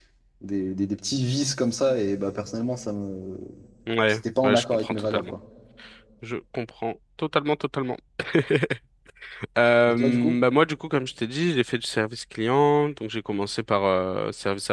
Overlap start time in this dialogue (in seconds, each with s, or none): 4.1 s